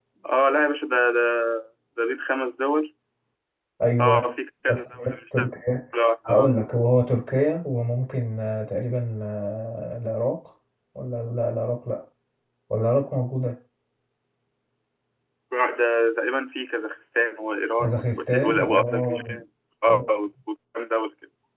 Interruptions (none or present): present